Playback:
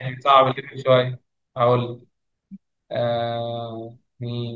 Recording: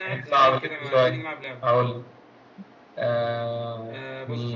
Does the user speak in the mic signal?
Yes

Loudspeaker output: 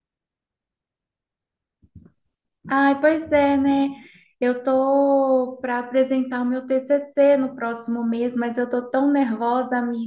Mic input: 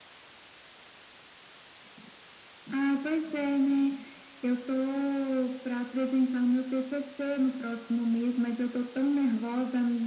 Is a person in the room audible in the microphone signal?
No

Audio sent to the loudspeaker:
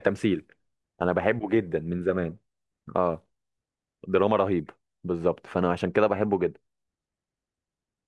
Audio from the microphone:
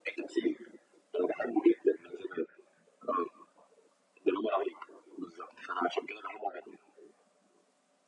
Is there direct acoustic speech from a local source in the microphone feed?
No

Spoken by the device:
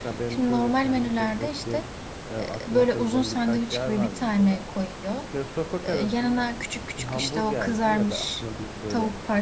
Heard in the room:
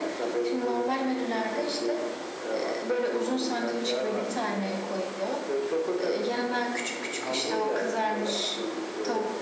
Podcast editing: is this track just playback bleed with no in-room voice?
Yes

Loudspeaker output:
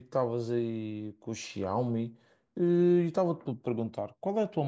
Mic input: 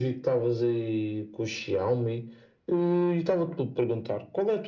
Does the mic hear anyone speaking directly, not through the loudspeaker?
No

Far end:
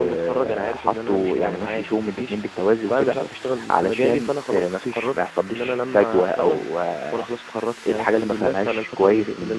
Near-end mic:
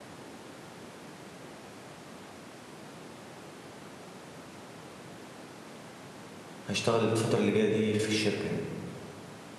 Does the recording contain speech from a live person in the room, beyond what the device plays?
Yes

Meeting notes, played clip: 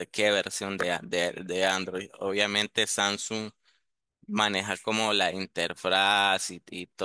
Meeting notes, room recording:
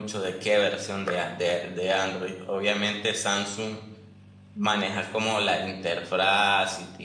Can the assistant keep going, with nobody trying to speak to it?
Yes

